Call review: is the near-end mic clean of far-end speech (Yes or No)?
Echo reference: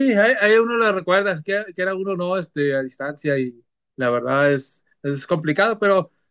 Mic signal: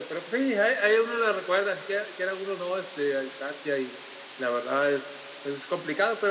No